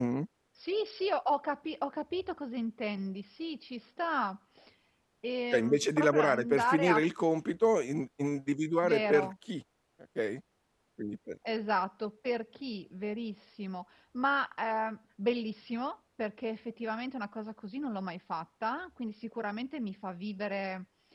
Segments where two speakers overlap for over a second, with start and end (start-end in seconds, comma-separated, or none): 5.5-7.0